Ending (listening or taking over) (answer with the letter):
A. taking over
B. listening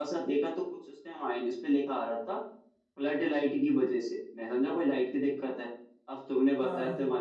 B